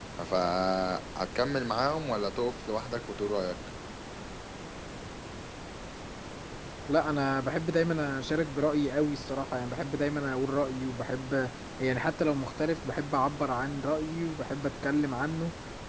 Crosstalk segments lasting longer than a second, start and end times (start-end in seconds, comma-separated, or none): none